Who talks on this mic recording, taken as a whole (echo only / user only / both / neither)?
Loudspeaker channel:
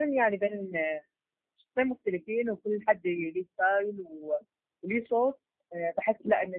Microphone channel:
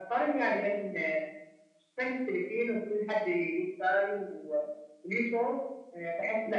echo only